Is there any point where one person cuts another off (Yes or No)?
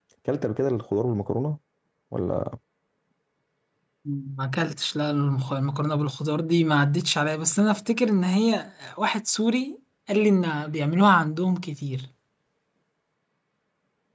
No